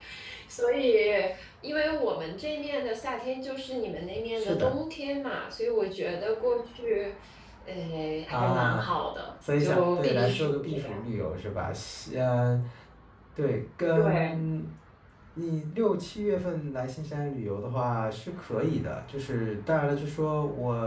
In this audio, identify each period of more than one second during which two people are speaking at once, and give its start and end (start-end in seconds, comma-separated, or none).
9.6-11.0